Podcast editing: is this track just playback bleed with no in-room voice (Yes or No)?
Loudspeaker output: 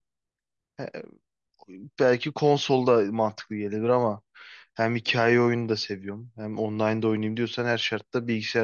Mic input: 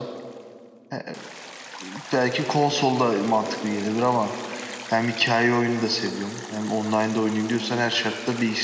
Yes